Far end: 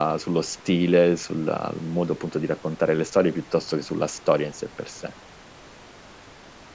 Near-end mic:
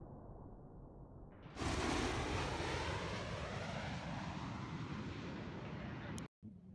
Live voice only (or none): none